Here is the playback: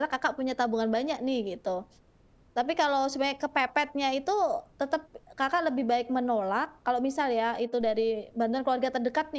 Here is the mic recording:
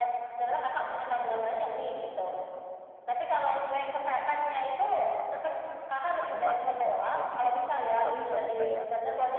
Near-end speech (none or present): present